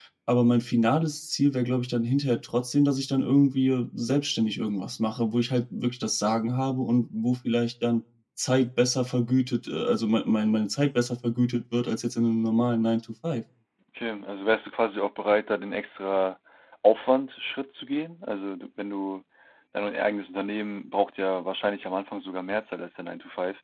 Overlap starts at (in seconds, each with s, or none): none